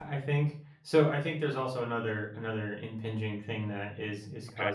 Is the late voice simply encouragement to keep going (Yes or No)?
Yes